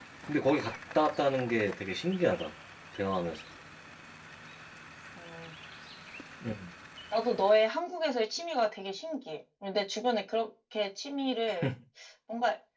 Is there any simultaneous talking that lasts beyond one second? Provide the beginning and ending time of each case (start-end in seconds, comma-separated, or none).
none